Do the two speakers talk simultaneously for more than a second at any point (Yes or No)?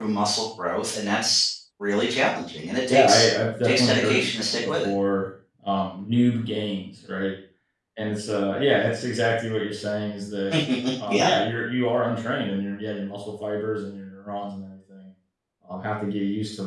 Yes